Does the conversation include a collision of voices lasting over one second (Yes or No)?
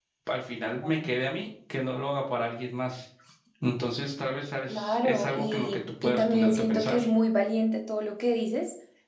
Yes